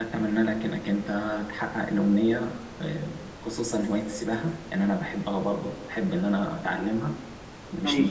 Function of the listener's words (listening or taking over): listening